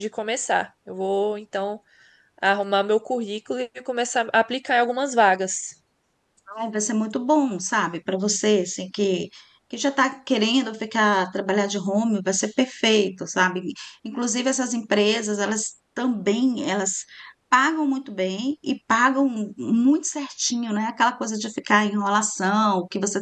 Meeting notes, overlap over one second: none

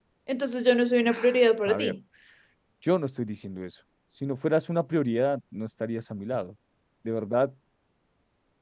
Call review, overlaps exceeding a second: none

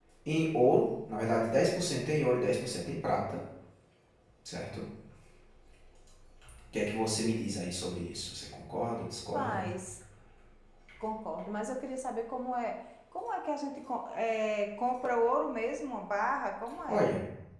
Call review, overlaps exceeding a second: none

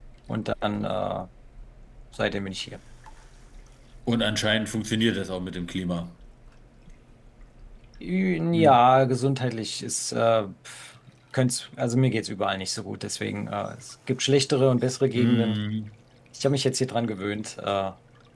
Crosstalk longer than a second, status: none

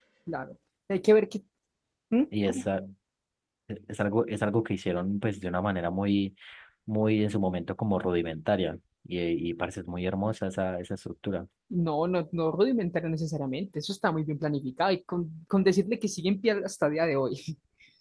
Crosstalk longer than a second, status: none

